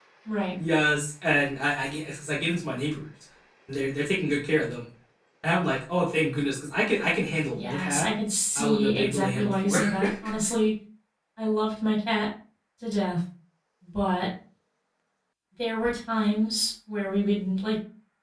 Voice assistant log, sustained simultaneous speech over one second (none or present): present